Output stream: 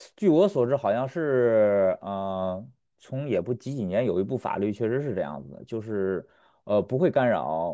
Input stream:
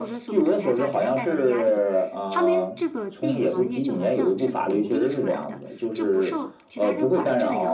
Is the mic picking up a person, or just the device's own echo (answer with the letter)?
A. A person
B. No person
A